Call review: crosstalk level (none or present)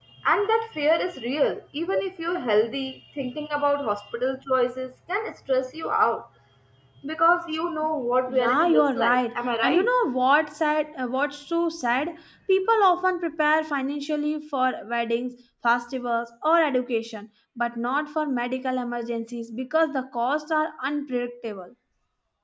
present